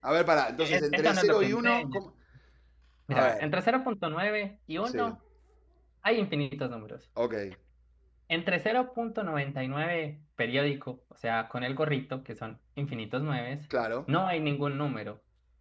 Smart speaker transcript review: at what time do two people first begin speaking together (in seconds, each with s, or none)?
0.6 s